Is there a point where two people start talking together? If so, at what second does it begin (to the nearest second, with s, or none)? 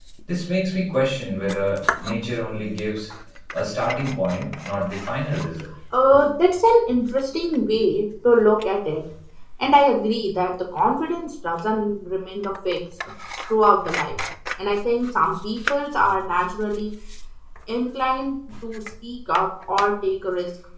none